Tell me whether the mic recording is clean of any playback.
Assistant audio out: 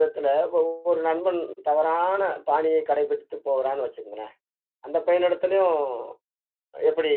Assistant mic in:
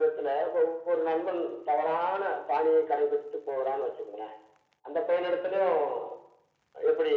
No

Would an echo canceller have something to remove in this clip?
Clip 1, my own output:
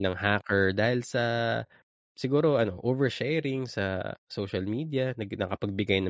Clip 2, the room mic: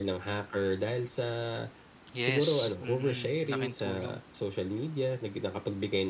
Yes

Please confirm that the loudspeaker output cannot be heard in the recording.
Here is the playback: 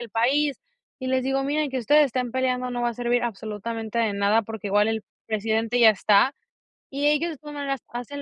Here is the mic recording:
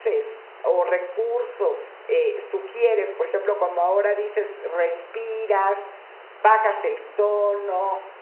Yes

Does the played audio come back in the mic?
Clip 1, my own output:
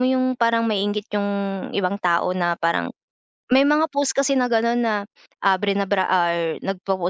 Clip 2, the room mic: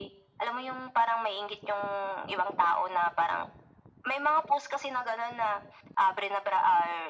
Yes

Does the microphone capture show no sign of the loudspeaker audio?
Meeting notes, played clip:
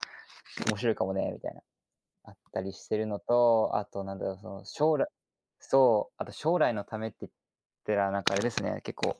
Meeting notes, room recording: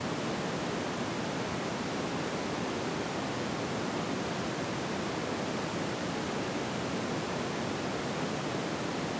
Yes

